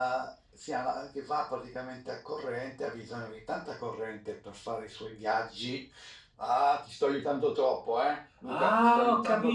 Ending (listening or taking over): taking over